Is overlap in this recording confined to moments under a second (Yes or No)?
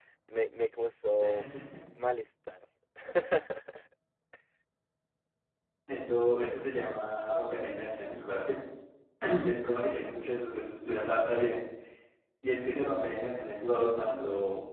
Yes